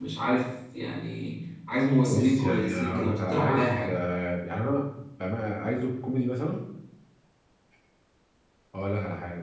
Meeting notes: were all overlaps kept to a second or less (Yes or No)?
No